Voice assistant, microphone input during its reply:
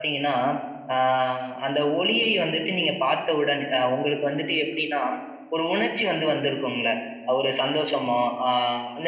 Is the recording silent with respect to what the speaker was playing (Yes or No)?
Yes